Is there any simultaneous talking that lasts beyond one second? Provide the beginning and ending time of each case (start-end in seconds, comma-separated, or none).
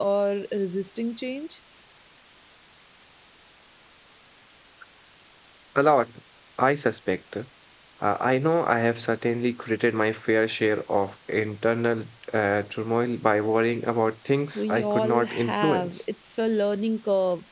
14.6-15.9